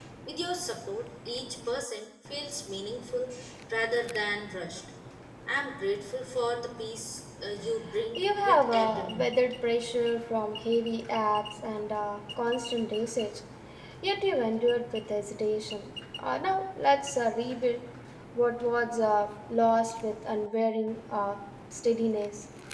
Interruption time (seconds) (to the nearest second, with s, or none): 8 s